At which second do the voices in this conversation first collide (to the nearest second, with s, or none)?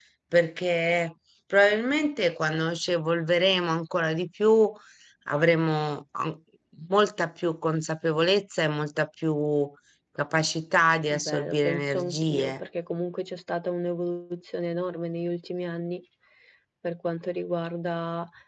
11 s